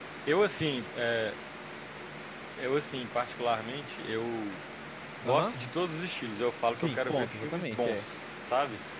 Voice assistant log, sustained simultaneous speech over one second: present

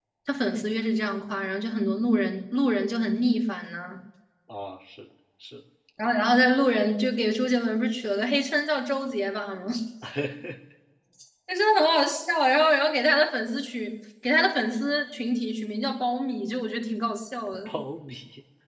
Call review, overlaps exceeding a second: none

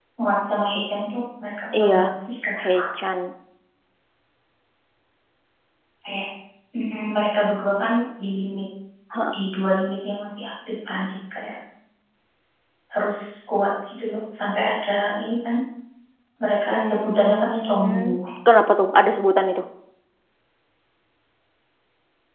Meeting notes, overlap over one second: present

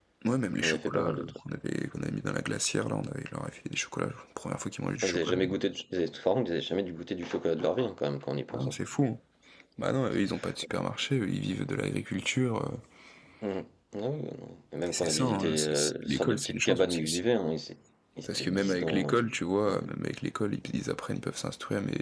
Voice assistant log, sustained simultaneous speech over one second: present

